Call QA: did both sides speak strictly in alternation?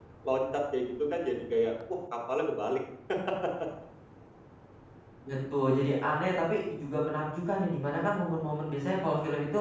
Yes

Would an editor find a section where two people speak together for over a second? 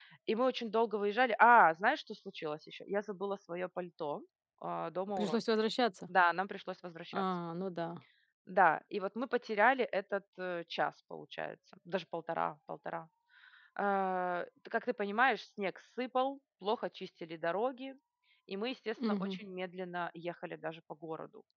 No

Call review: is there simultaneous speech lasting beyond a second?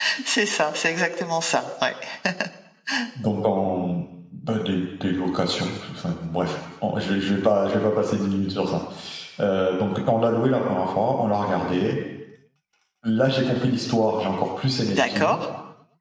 No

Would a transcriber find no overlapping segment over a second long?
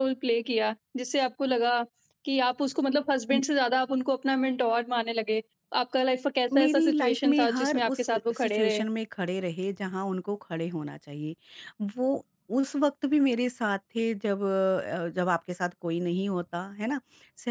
No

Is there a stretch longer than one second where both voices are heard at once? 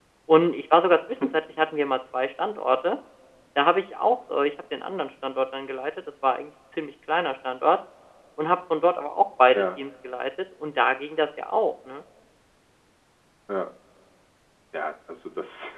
No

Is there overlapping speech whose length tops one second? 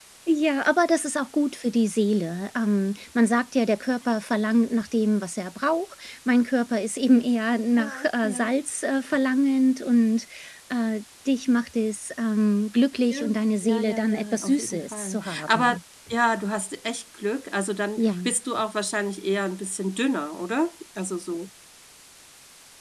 Yes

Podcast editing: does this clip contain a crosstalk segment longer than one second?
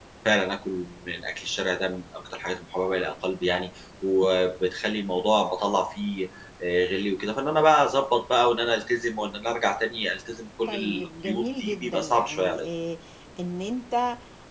Yes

